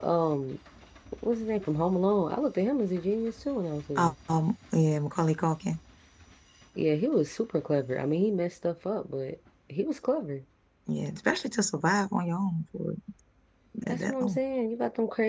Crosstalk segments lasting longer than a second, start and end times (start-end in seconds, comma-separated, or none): none